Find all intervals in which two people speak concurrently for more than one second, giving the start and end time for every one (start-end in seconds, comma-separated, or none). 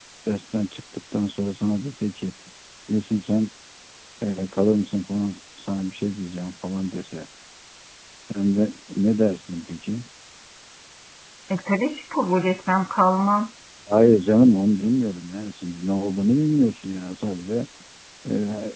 none